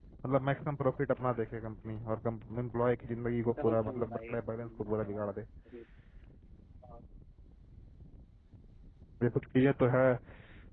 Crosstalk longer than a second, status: present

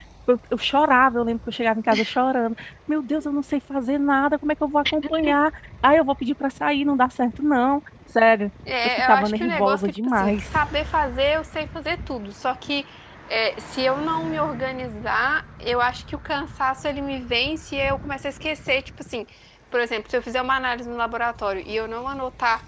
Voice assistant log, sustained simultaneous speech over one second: present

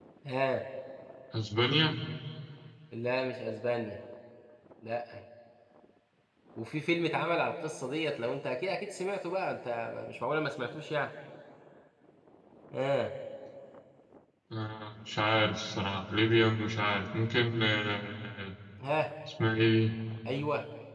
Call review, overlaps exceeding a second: none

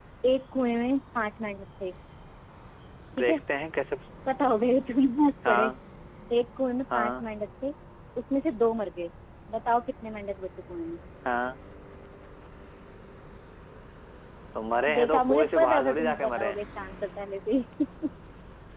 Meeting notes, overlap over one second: present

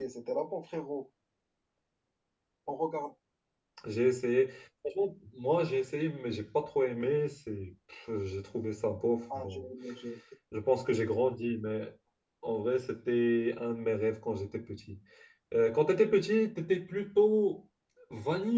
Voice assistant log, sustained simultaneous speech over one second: none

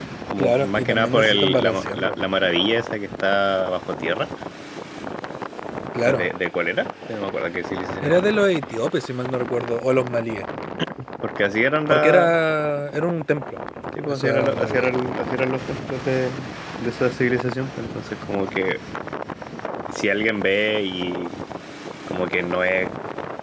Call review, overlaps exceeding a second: present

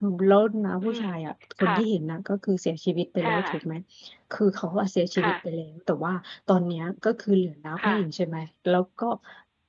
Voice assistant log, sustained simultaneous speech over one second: none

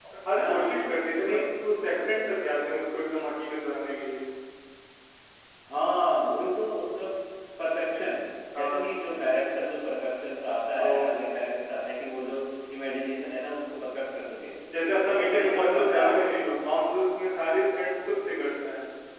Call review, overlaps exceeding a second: present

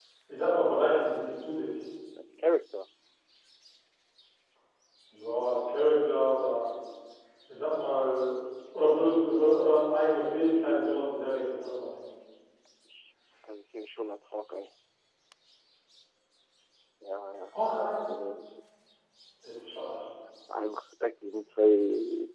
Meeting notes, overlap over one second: none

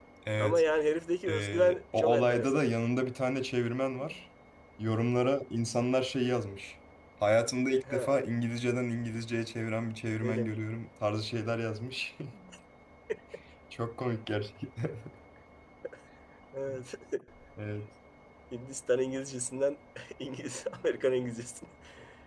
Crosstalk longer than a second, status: present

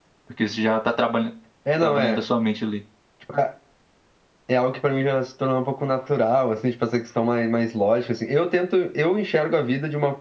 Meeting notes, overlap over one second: none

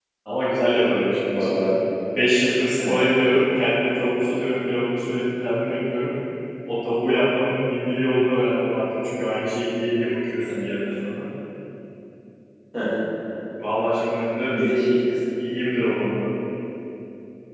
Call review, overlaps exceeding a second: none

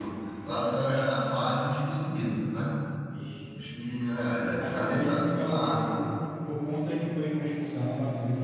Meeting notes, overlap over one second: present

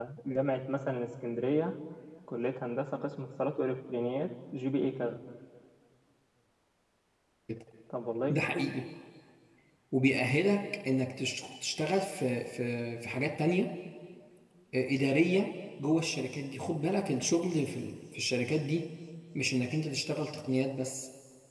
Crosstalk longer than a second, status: none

